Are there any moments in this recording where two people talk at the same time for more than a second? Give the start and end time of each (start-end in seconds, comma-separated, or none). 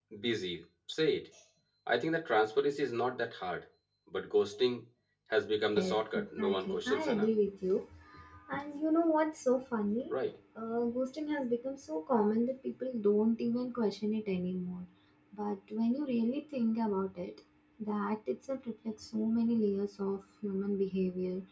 5.8-7.3